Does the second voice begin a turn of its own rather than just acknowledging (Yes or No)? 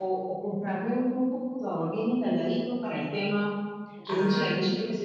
No